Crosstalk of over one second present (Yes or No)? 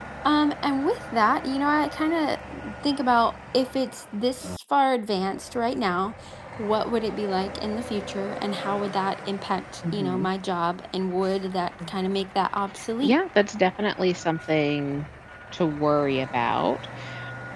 No